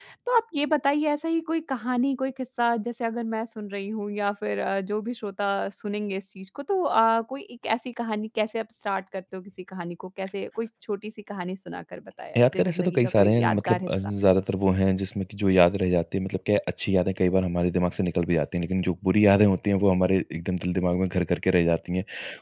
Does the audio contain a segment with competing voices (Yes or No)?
Yes